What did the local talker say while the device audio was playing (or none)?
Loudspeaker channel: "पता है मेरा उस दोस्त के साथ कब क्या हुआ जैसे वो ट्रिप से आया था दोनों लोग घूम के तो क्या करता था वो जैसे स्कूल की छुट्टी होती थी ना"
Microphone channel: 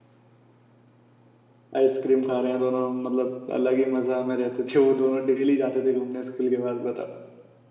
आइसक्रीम खा रहे हैं दोनों मतलब अलग ही मजा में रहते थे वो दोनों डेली जाते थे घूमने स्कूल के बाद बताओ